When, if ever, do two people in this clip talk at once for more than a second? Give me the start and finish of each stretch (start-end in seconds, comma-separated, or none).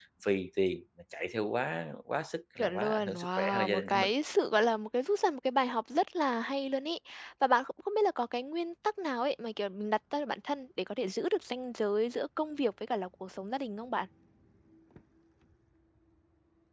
2.6-4.1